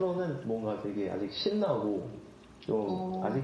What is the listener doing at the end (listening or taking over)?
listening